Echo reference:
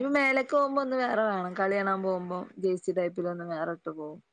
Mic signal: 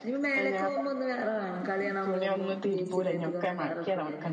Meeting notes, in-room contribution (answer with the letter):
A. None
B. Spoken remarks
B